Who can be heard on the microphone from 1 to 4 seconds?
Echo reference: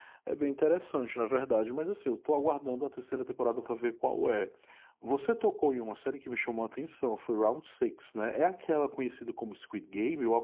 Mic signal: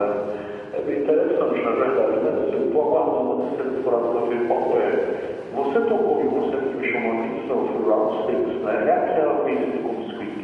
echo only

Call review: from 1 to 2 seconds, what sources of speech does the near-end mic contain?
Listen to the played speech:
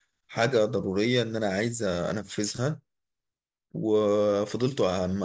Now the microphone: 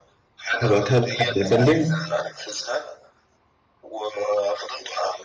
both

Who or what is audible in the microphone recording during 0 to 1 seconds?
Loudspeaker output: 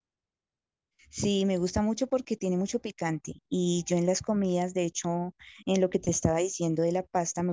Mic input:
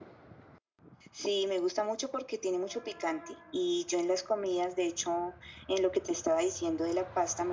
neither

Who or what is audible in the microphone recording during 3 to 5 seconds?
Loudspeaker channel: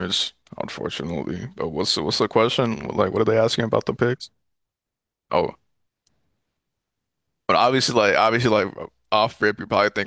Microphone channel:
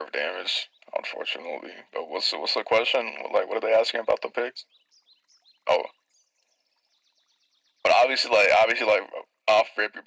echo only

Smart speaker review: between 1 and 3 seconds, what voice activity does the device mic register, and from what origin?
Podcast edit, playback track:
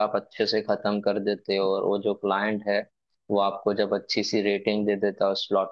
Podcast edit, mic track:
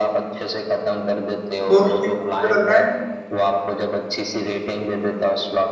both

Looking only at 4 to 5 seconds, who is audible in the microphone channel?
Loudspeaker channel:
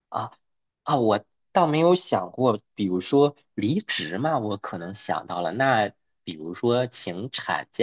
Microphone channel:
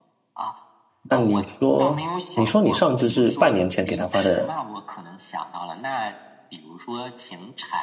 both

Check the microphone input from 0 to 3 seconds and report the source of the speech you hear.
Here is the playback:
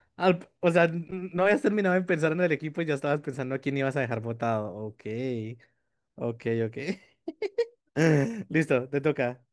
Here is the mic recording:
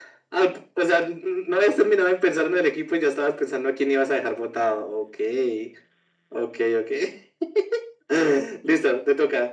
echo only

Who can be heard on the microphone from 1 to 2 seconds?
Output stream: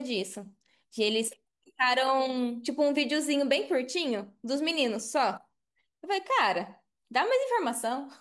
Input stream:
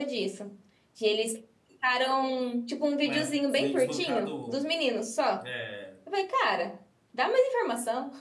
echo only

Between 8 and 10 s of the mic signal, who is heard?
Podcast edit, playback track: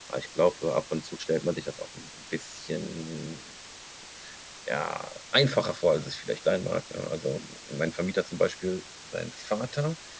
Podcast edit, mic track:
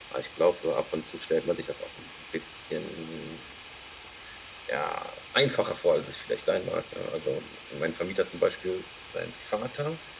echo only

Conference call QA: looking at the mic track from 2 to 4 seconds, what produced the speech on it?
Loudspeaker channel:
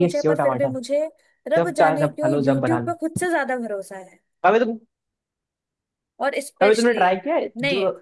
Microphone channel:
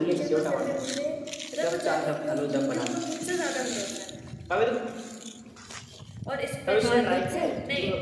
echo only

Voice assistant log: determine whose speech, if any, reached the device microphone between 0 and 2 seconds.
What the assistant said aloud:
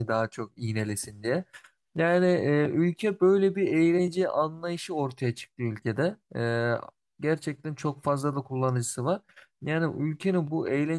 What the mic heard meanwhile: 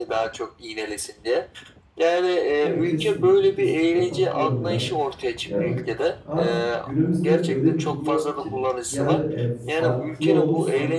echo only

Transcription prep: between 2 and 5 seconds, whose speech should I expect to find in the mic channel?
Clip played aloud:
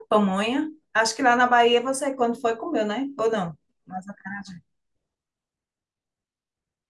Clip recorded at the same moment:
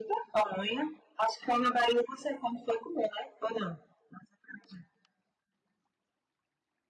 echo only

